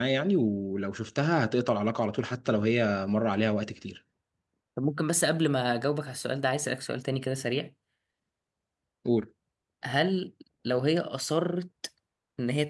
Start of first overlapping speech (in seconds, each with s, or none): none